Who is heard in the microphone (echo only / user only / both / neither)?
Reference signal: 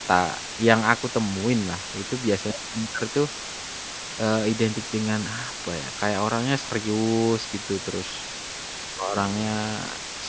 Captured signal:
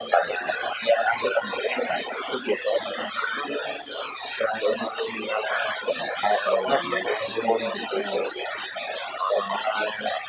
both